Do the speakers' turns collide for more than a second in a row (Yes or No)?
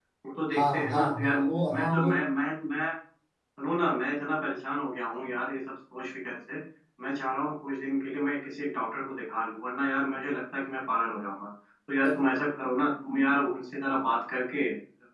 Yes